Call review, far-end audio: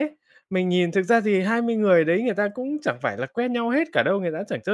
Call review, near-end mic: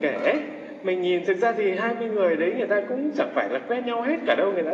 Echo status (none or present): present